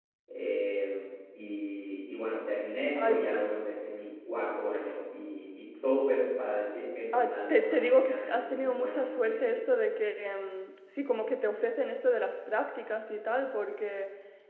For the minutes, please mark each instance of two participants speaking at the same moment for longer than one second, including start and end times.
7.2-9.6

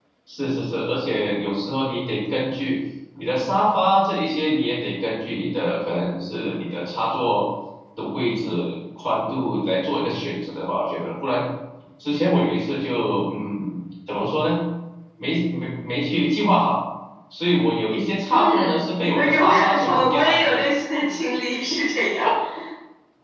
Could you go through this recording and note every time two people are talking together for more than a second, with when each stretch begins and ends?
18.3-20.6

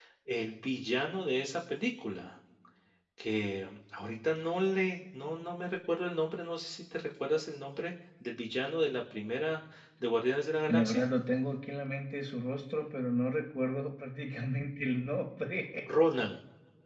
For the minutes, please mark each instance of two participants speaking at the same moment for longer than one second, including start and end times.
none

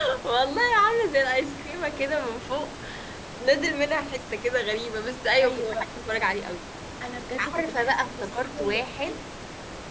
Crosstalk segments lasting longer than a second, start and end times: 7.5-9.2

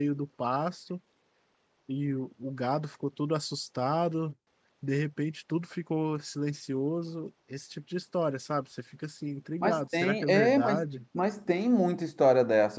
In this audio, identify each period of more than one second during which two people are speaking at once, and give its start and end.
9.6-10.8

